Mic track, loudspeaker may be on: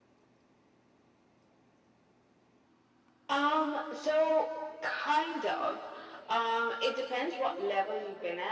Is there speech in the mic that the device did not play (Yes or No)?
No